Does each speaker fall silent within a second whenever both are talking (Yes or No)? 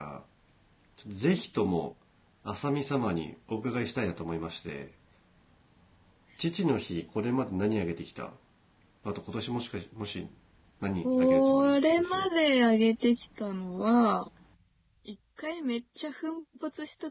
No